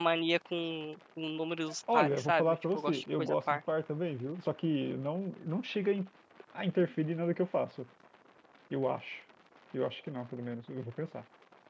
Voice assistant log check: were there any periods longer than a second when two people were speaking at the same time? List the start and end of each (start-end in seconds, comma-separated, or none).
1.9-3.6